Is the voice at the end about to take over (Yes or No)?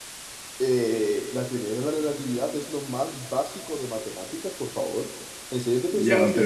Yes